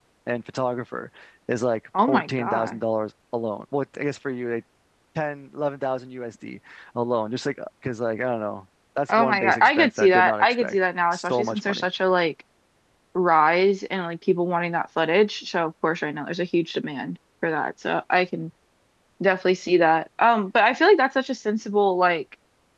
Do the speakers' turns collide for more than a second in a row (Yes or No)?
Yes